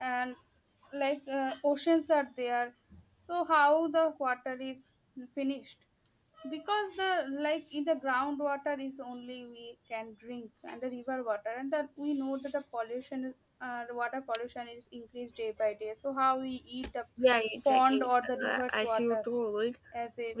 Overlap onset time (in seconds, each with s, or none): 17.6 s